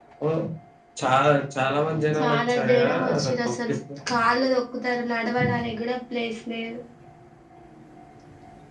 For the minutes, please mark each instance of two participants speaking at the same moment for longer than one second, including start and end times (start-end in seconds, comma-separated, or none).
2.2-3.5